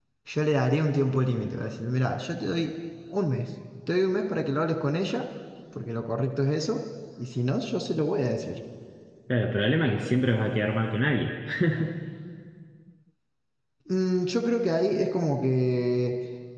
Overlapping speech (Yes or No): No